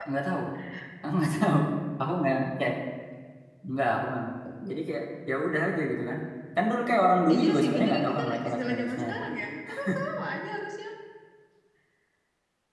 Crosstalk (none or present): present